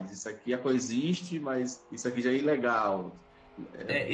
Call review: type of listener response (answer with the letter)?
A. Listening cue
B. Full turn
B